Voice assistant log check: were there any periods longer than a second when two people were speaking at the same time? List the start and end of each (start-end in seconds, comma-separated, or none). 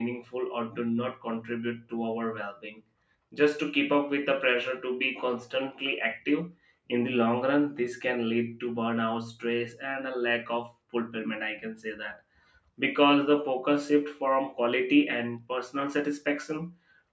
none